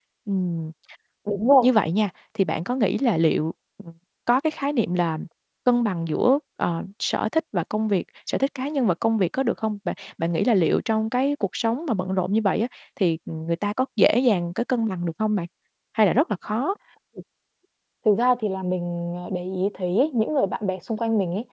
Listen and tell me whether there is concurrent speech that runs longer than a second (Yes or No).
No